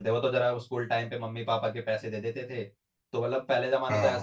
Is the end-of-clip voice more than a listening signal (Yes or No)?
No